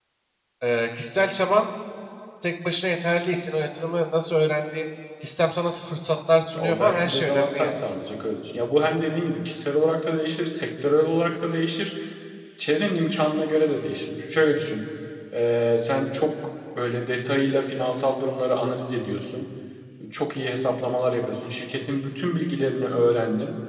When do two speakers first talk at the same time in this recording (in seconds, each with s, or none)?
6.5 s